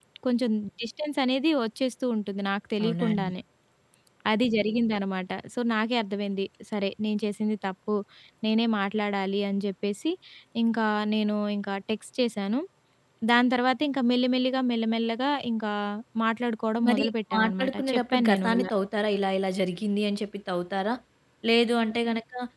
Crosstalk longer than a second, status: present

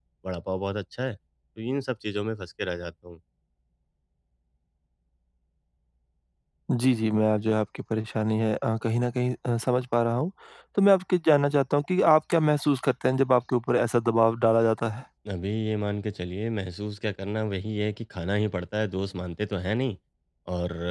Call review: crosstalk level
none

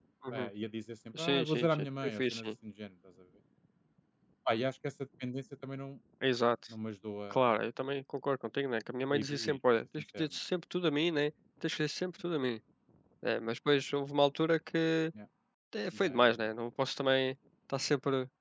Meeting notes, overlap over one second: present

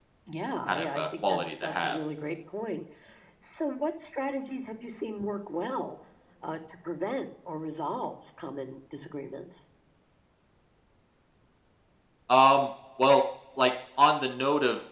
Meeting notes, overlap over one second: present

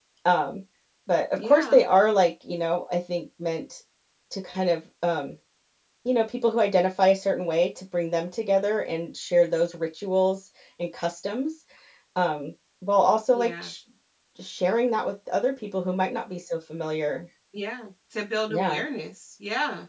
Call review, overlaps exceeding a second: none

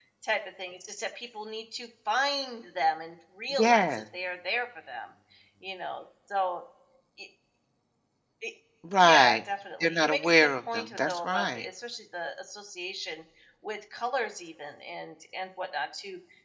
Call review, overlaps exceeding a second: present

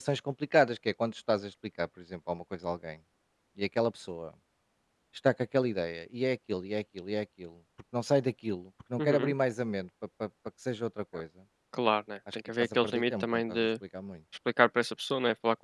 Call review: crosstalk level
present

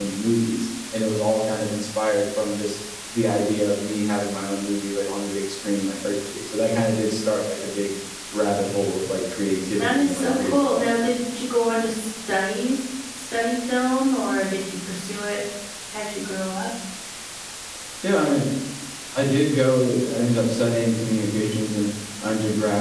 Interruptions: present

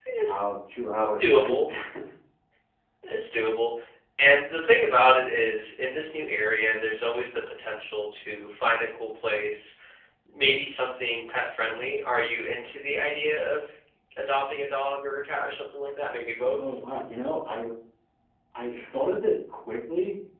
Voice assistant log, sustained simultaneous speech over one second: none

